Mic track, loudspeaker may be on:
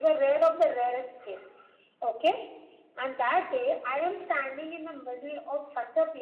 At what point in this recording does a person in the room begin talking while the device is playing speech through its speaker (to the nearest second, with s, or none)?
none